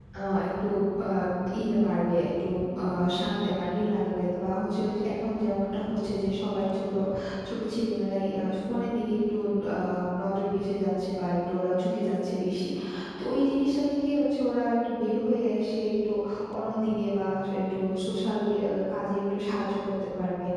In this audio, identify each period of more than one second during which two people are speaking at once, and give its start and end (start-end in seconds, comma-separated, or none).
none